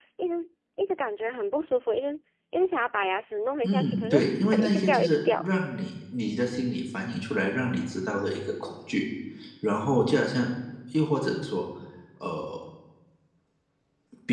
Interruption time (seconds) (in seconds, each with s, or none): 3.6 s